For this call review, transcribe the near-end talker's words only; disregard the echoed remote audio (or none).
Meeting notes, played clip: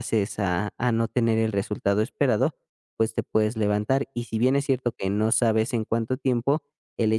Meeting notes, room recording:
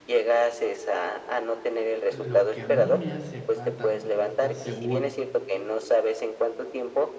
lo que a mí me hace falta como para estar seguro